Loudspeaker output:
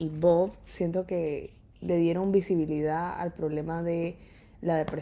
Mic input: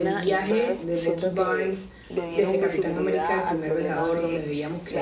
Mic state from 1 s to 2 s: both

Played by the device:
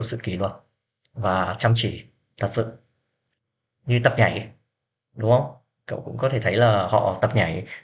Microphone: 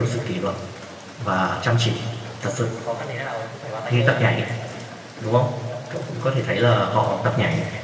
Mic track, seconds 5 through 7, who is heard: echo only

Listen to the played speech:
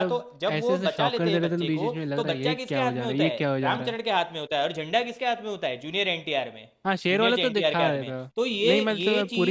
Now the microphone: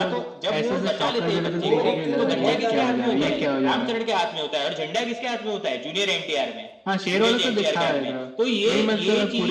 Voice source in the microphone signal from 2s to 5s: both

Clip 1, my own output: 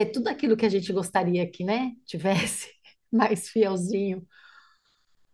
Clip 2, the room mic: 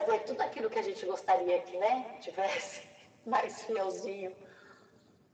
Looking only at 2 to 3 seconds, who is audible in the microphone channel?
echo only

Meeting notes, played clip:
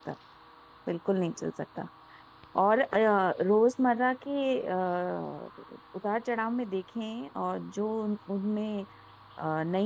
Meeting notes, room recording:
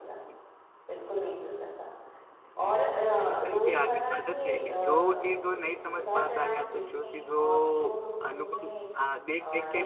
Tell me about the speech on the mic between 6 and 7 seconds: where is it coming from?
both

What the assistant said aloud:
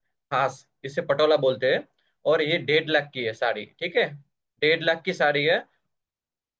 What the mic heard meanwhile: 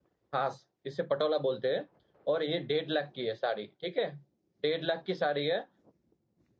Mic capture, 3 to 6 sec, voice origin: echo only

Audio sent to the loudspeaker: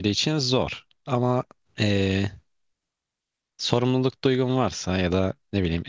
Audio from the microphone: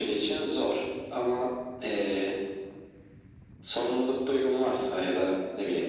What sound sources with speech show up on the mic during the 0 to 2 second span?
echo only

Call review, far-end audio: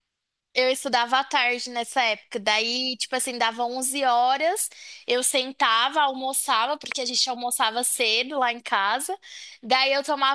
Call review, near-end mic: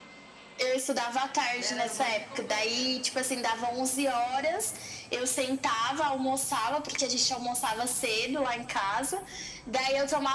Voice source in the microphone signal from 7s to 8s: echo only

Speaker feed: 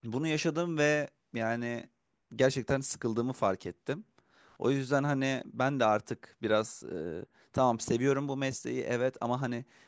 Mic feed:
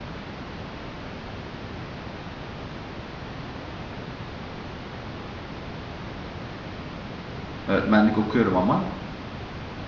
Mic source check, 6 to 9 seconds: user only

